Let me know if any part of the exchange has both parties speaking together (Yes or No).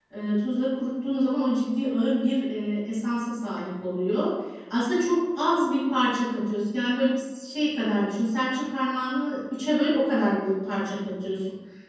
No